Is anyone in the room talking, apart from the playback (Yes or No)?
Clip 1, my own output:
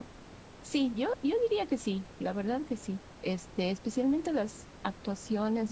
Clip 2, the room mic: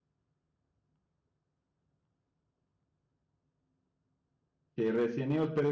Yes